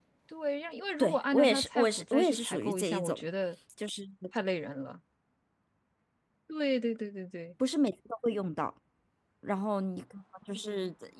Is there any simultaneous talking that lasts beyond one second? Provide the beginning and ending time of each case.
1.0-3.2

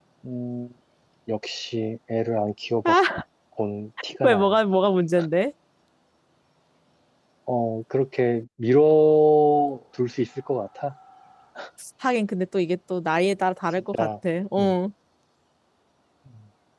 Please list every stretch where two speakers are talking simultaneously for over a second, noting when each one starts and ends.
none

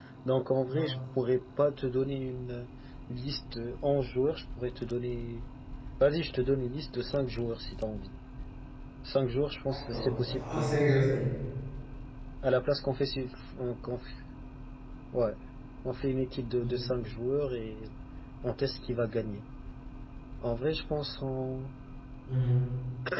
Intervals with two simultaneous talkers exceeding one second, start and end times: 9.7-11.0

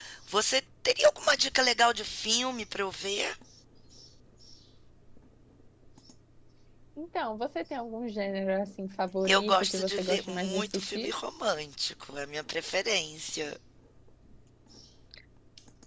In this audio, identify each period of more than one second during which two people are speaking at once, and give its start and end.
9.3-11.1

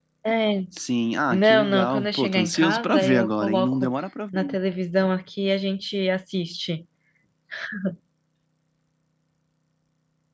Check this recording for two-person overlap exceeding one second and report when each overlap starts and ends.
1.3-3.9

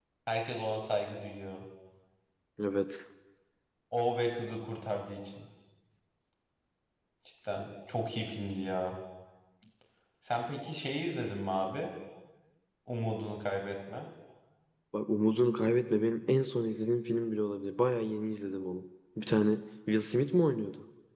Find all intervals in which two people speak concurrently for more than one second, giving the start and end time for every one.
none

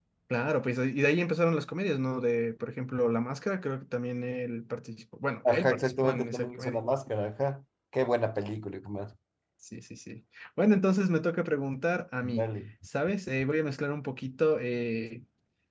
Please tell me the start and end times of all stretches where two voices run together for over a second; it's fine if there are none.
5.5-6.8

